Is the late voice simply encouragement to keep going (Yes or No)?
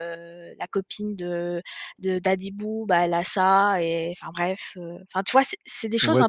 No